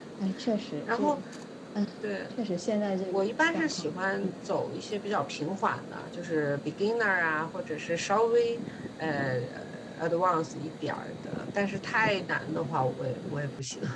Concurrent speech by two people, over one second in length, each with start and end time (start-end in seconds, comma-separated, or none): 3.1-4.3